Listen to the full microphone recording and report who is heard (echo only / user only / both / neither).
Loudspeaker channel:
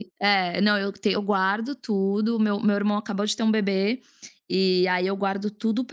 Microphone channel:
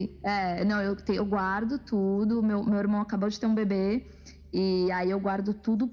echo only